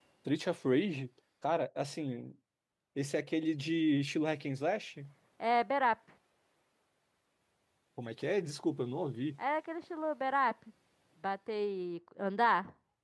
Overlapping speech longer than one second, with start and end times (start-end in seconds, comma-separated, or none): none